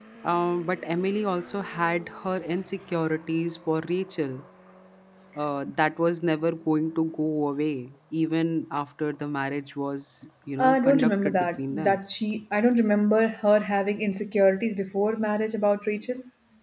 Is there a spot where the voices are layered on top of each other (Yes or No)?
Yes